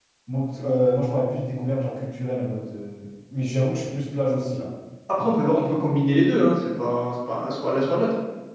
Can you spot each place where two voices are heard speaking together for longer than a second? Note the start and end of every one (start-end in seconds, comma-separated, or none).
none